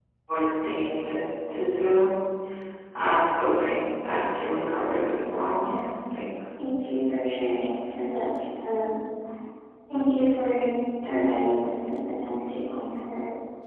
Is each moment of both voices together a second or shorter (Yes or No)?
Yes